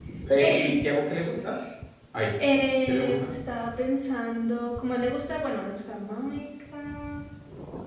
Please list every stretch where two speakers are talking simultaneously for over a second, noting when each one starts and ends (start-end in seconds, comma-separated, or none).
none